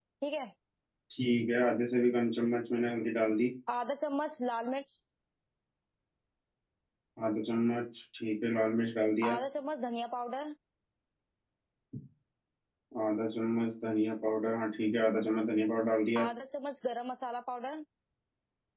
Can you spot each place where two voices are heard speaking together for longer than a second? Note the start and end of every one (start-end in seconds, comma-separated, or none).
none